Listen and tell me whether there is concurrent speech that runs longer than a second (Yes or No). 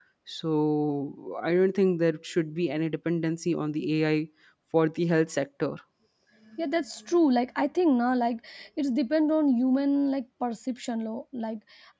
No